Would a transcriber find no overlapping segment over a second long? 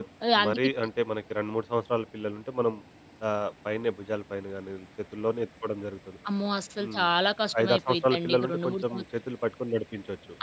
No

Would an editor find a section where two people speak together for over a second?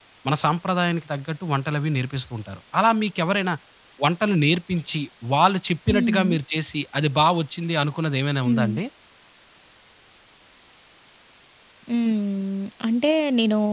No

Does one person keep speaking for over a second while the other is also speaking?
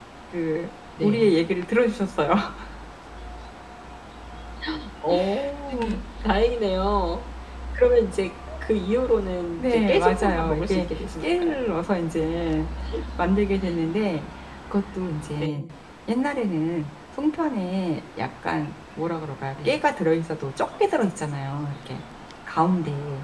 Yes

